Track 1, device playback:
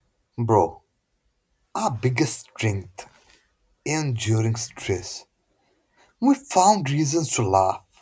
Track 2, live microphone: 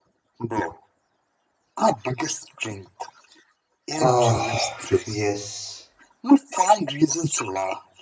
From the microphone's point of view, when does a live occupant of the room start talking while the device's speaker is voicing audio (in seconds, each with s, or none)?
4.0 s